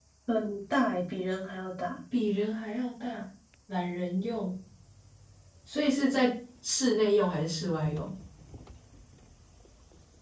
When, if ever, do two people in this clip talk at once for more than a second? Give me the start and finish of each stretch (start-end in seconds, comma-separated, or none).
none